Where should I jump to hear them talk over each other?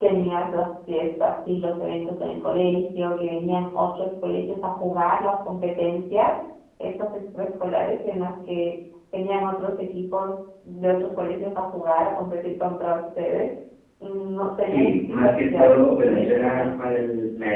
14.6 s

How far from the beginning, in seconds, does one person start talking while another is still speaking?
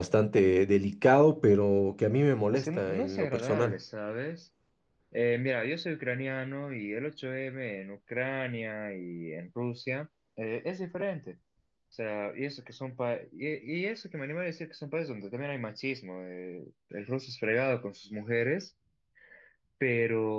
2.5 s

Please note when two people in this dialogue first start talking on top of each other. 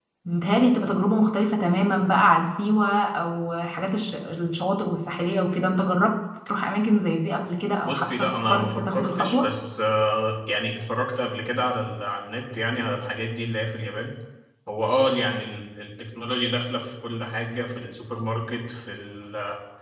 7.8 s

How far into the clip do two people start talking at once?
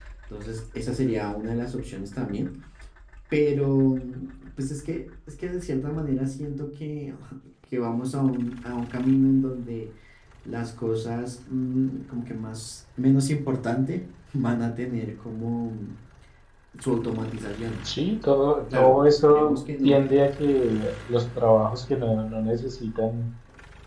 18.7 s

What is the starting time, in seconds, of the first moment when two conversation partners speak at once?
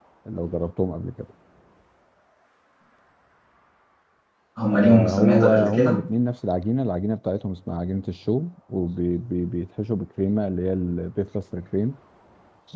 4.7 s

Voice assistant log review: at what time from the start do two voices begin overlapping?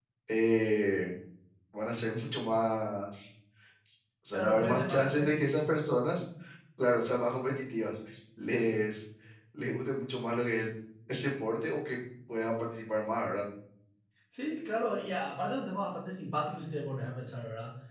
4.3 s

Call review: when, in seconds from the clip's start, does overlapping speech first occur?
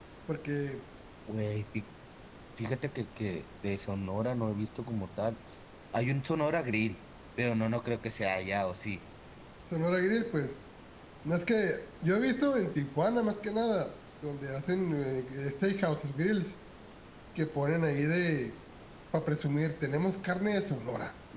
none

